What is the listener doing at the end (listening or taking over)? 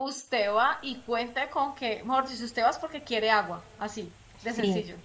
taking over